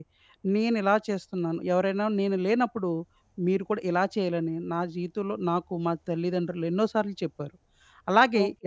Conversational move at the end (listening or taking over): taking over